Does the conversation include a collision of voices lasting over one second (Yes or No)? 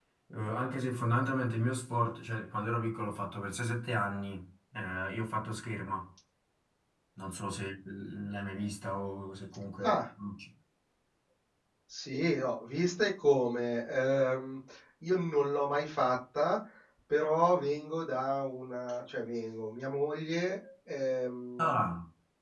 No